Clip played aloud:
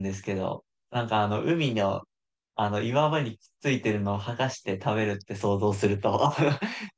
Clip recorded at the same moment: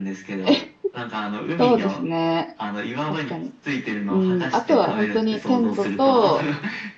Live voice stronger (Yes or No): Yes